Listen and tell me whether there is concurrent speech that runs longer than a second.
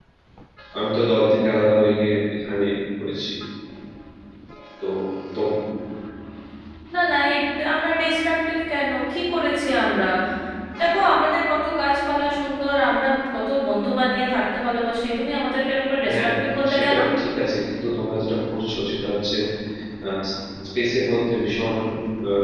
No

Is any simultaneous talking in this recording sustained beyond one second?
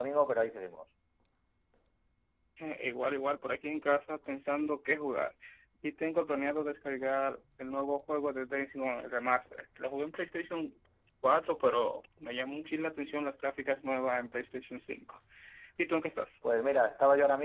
No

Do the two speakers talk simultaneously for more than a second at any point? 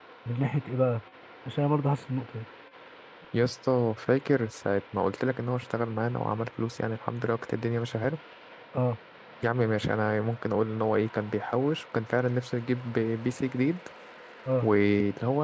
No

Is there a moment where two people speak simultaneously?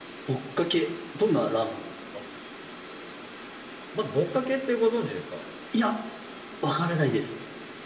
No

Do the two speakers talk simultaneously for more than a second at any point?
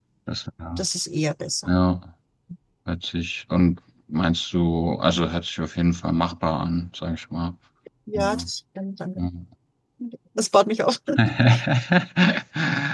No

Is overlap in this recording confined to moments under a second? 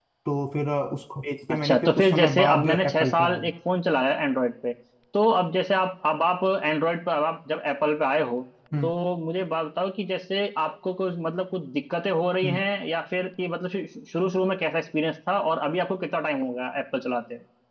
No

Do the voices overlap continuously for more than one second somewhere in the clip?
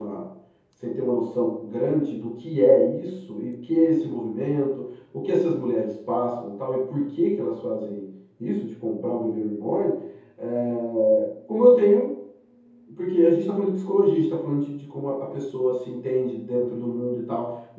No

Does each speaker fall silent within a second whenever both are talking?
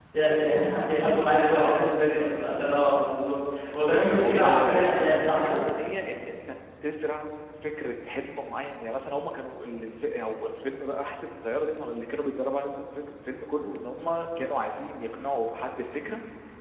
No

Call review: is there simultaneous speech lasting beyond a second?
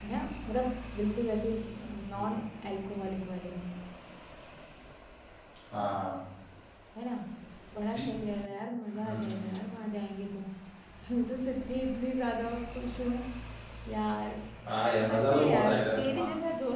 Yes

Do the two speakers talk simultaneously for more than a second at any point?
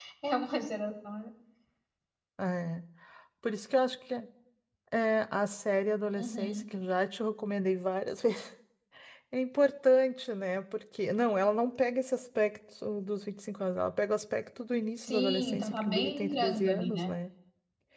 Yes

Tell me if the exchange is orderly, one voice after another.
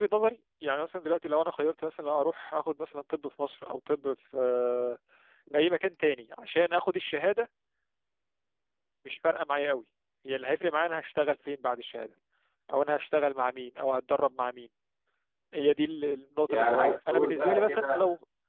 No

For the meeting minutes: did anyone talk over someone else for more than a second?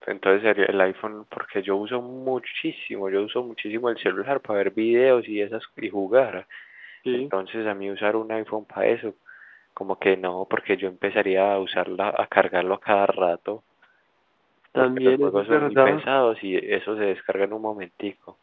Yes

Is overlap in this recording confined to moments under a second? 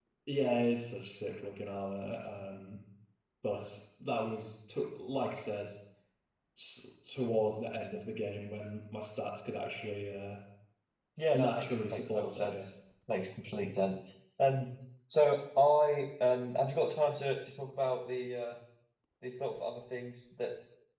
No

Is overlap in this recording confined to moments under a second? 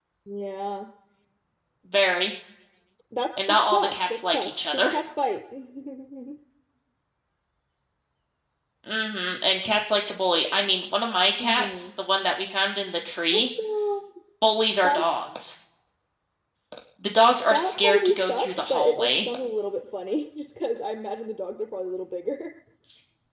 No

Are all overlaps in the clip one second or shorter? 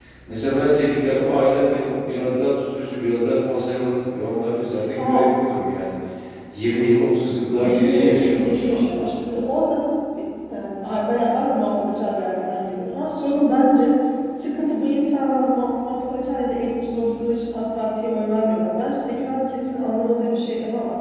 No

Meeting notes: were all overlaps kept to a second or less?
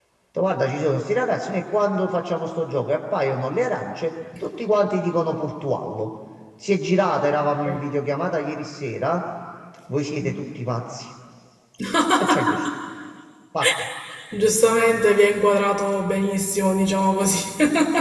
Yes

